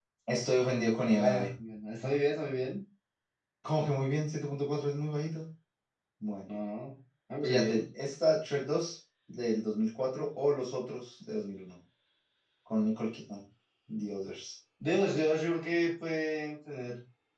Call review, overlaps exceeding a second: none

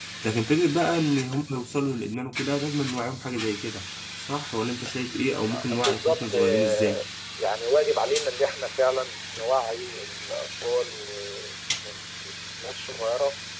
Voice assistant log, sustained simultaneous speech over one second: present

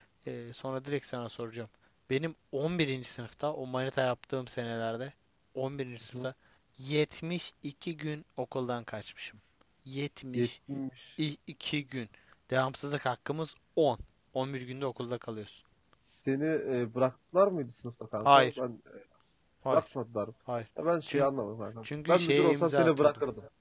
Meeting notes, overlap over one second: present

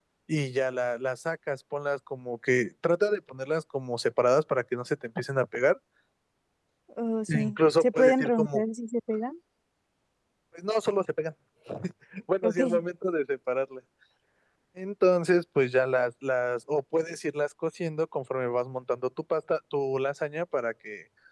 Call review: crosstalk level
present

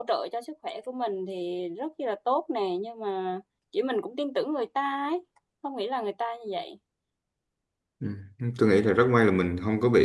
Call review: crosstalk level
none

